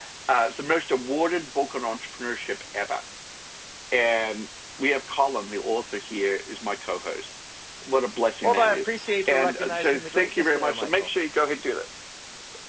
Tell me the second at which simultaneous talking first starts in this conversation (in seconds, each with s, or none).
8.4 s